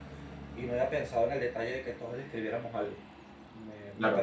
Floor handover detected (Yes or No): Yes